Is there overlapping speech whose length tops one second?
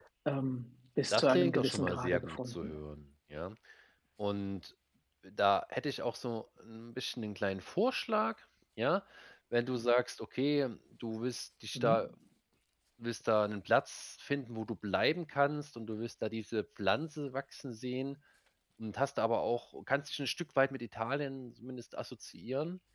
Yes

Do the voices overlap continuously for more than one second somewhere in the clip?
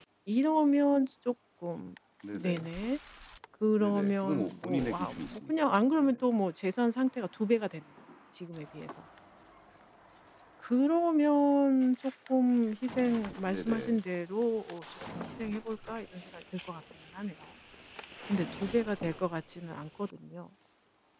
Yes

